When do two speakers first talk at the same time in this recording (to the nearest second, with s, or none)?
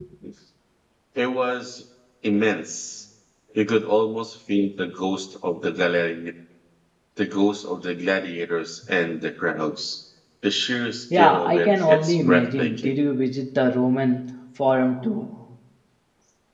11 s